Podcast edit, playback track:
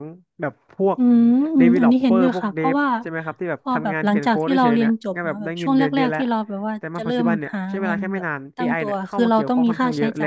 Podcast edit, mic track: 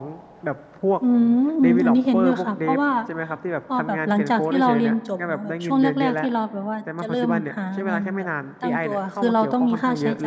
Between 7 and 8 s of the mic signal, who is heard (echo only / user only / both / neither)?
echo only